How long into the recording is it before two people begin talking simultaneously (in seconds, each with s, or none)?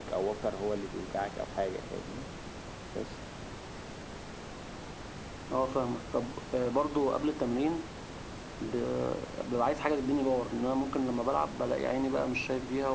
none